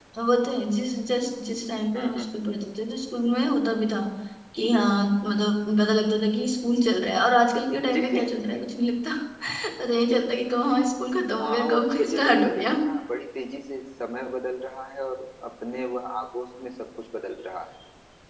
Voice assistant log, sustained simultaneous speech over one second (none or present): present